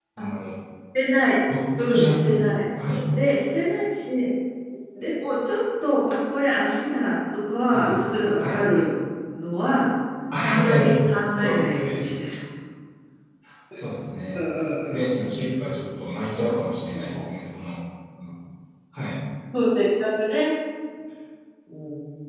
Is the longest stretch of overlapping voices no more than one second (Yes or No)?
No